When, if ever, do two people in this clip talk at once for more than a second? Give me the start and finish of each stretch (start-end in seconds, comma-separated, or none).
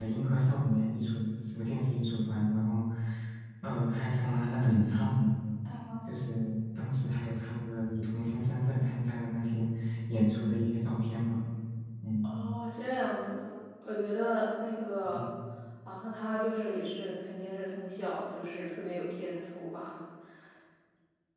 none